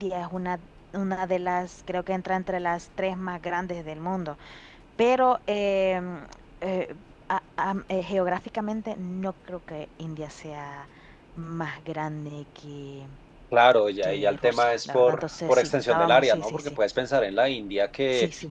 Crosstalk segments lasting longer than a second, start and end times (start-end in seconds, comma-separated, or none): 14.0-16.8